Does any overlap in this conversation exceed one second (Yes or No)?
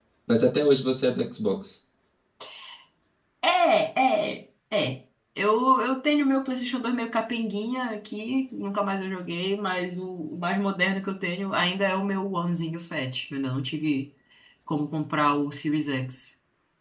No